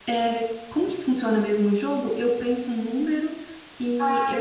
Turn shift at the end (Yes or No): Yes